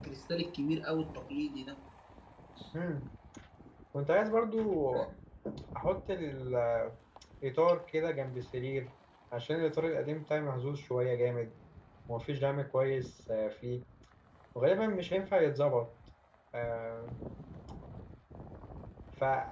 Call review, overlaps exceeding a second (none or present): none